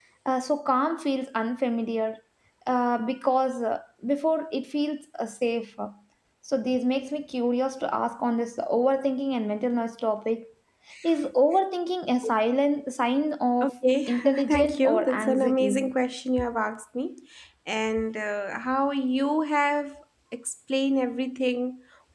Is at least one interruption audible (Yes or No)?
Yes